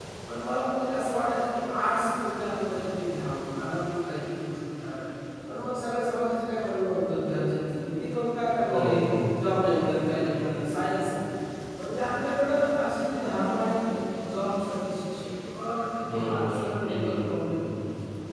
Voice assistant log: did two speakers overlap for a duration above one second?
Yes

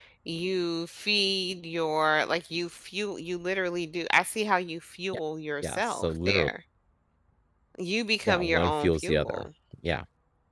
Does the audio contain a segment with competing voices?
Yes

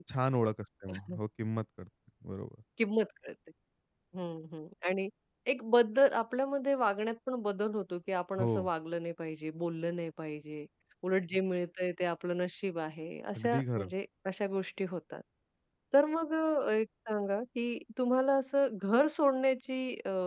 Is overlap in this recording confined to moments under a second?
Yes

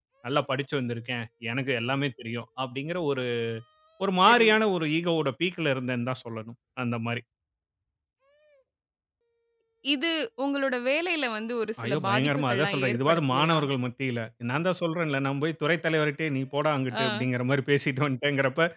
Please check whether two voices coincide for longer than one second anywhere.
Yes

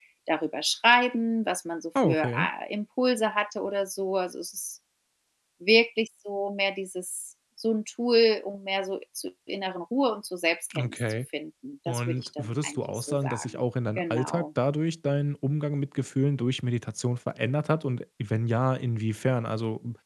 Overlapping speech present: Yes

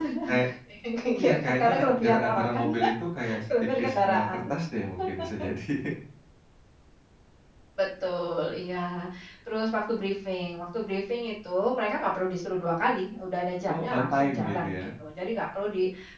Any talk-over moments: Yes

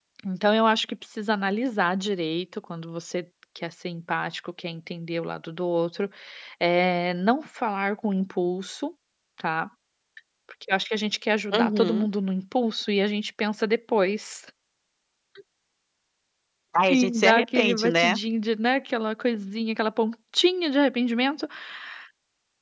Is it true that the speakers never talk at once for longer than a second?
No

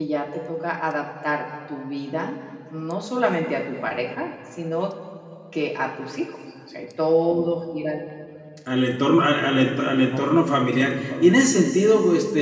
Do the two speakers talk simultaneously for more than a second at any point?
No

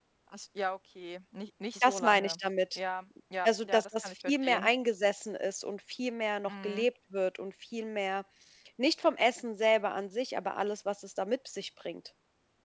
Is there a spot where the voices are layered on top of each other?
Yes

